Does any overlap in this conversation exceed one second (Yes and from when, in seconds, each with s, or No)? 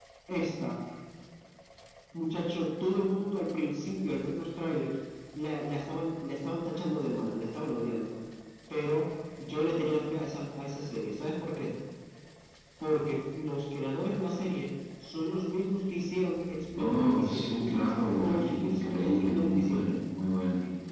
Yes, from 16.8 s